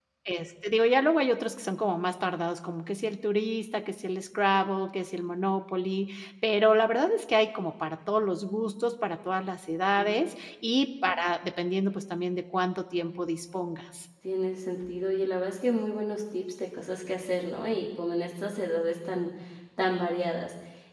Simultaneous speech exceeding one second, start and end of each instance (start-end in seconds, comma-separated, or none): none